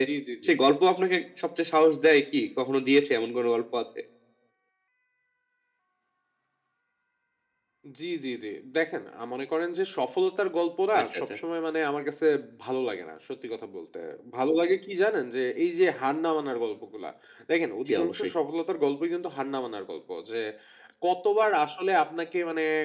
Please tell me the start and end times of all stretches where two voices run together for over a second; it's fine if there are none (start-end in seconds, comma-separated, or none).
none